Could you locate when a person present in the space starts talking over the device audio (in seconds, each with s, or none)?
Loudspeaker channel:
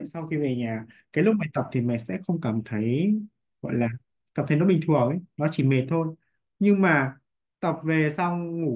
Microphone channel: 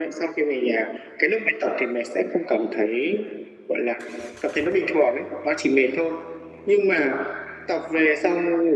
none